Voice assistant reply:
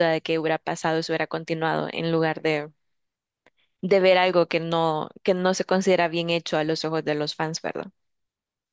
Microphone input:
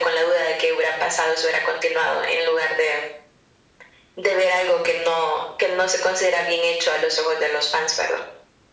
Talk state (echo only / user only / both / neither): echo only